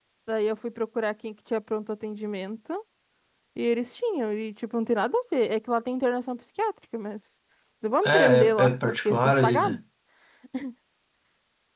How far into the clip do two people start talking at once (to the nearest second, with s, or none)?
8 s